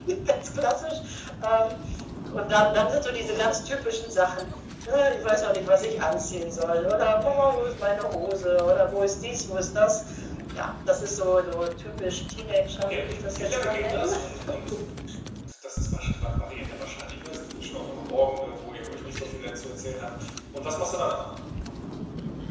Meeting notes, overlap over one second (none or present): present